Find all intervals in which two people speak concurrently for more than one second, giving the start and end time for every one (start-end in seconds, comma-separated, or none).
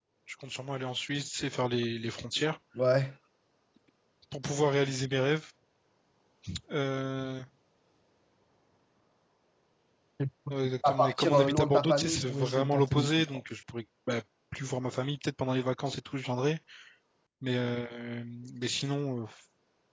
10.8-13.4